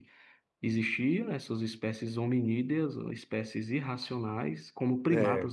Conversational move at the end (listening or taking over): listening